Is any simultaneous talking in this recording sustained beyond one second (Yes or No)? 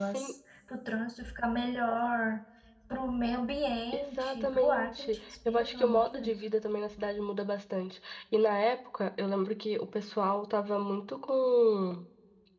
Yes